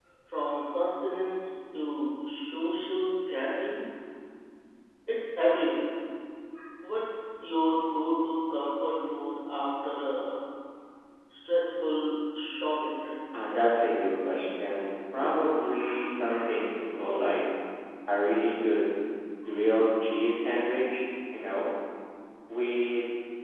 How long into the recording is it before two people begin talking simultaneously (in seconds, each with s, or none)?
none